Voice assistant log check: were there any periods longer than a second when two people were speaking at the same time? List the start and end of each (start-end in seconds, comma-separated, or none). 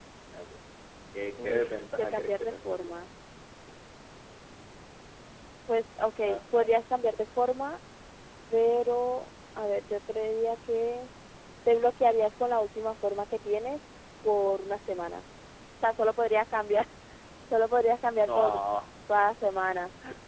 1.4-2.9